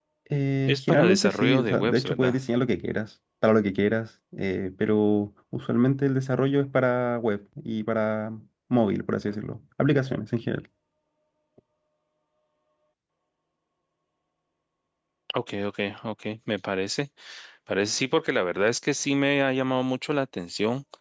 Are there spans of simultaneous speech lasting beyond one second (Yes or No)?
Yes